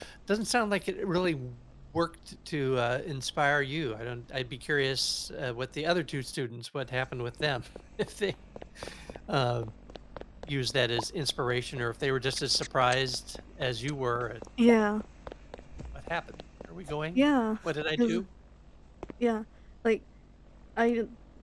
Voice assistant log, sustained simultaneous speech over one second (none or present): none